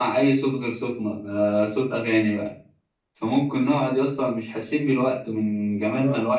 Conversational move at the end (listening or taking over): listening